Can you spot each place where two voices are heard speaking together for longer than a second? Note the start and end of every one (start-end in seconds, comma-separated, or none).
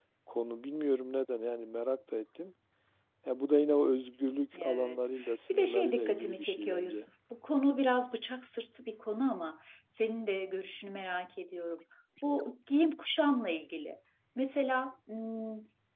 5.5-7.1